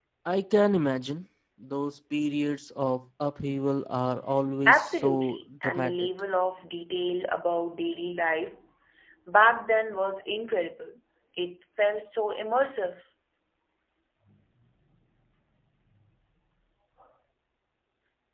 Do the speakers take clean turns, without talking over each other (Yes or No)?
No